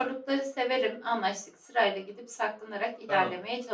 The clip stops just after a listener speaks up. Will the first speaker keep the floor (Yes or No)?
No